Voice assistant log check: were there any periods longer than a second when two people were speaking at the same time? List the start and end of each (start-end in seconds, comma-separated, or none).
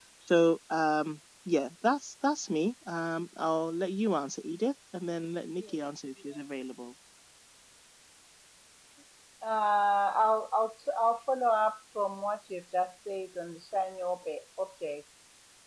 none